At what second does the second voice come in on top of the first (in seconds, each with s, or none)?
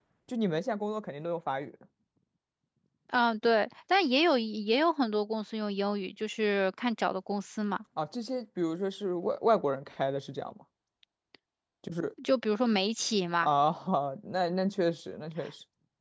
none